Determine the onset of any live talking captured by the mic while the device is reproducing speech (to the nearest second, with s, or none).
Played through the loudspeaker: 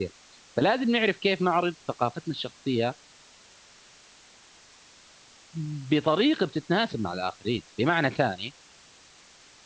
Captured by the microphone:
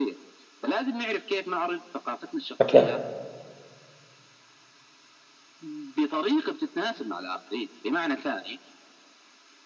3 s